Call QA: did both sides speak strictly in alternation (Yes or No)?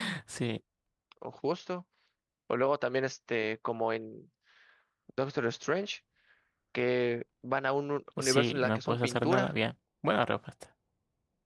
No